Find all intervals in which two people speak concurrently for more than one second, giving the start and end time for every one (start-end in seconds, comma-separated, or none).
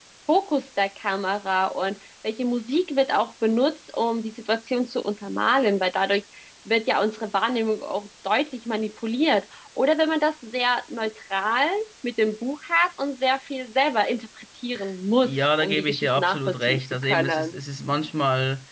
15.2-17.6